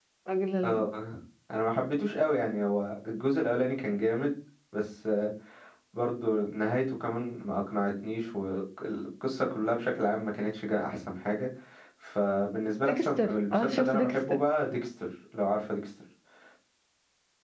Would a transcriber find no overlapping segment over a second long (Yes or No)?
No